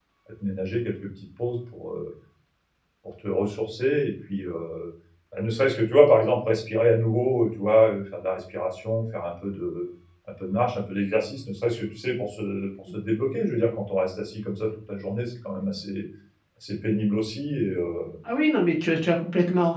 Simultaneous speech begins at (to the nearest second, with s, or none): none